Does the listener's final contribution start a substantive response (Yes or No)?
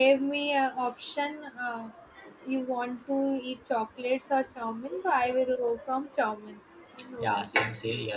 Yes